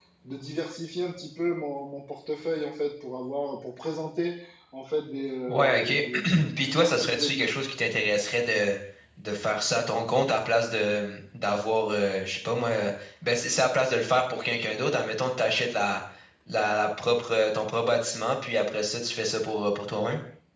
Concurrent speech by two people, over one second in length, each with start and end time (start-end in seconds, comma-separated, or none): 5.5-7.5